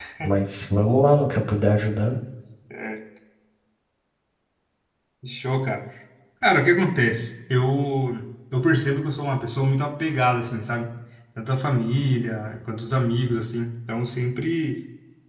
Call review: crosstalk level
none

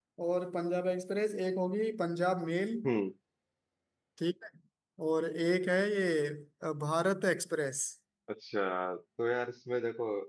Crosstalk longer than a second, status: none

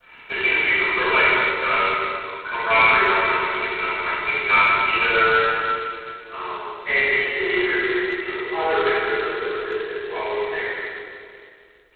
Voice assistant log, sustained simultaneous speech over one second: none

